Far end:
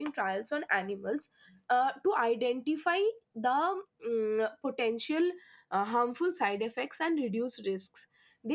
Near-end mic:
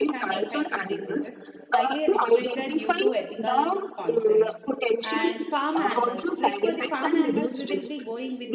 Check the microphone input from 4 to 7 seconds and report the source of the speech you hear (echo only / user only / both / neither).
both